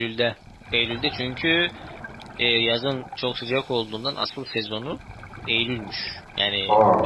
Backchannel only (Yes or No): Yes